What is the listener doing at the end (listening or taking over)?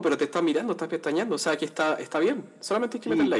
taking over